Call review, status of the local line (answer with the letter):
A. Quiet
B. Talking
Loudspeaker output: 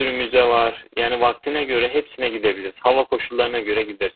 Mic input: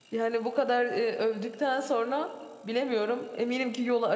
B